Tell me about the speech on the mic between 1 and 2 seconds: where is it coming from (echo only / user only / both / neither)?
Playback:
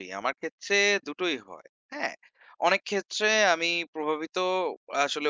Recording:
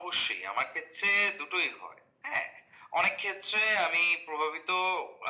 echo only